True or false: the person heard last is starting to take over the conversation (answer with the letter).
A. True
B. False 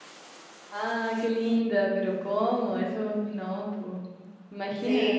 A